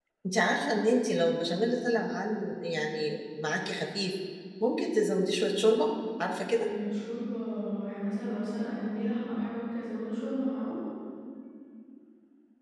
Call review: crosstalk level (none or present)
none